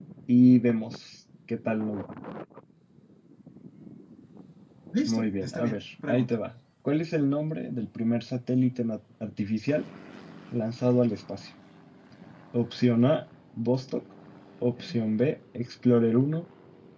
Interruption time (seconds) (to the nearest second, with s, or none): 5 s